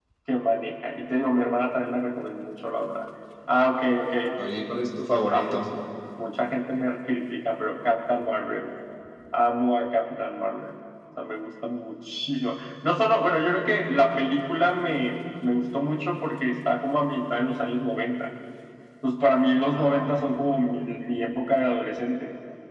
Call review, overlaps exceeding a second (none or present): none